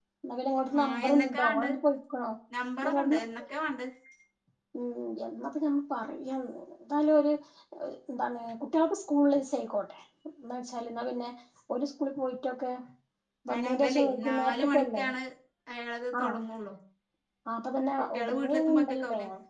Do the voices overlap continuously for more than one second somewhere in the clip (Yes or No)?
Yes